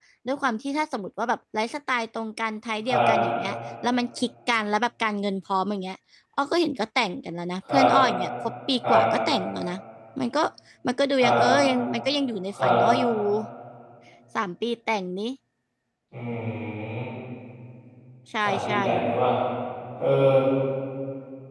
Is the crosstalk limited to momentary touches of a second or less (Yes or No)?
Yes